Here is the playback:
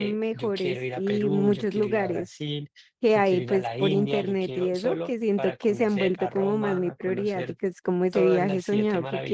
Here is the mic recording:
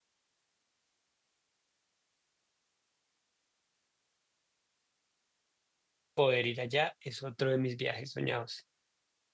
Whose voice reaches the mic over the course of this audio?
user only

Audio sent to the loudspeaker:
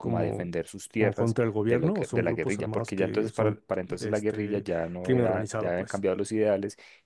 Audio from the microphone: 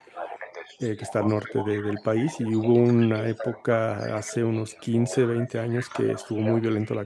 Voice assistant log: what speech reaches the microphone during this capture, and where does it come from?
both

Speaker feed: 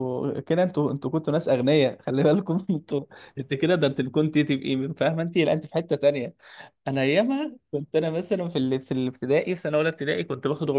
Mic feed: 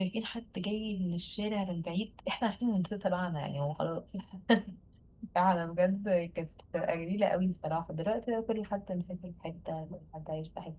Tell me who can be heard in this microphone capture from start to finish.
user only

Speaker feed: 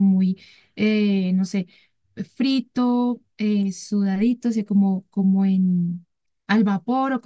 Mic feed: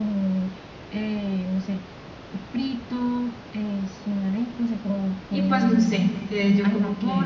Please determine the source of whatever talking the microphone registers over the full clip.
both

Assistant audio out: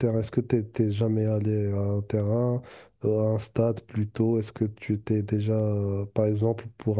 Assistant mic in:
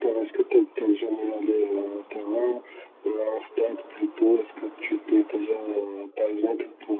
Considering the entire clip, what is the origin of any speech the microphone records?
echo only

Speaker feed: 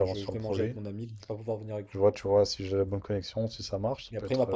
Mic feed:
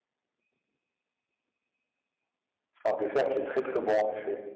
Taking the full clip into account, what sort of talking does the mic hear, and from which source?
user only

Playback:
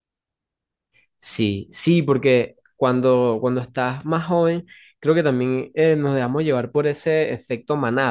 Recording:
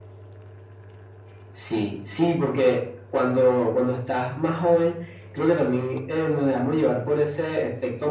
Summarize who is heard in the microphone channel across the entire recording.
echo only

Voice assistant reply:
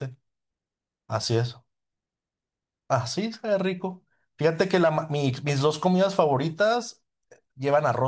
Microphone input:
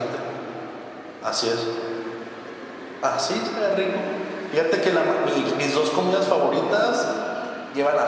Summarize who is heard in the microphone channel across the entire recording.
echo only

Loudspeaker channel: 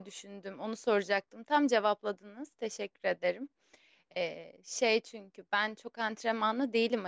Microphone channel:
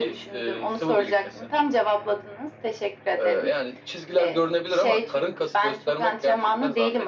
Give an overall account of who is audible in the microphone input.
both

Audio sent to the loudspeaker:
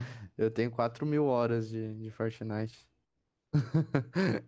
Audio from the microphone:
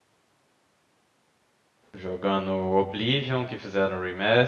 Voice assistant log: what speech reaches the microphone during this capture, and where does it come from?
user only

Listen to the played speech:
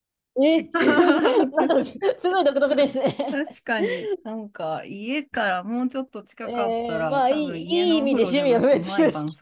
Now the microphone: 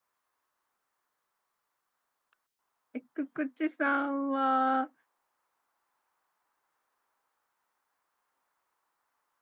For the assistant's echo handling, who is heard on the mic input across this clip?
user only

